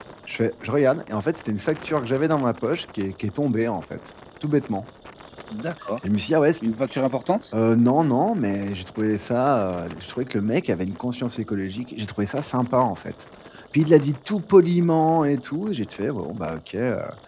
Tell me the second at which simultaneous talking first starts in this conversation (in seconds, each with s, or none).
none